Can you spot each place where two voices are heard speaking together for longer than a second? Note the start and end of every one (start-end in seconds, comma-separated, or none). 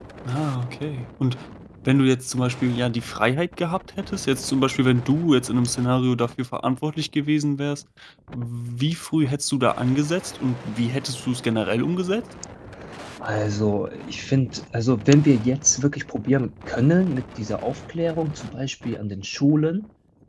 none